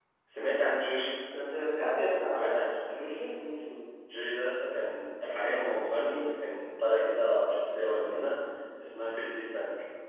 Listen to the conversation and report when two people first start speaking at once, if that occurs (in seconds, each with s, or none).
none